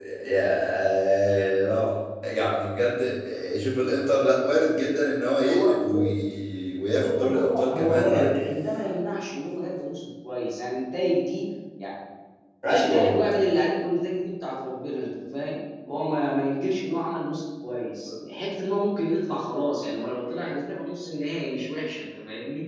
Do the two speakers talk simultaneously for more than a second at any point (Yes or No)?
Yes